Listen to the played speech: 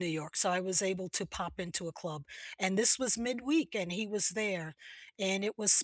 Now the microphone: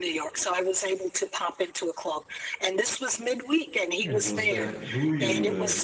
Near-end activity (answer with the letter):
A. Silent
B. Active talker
B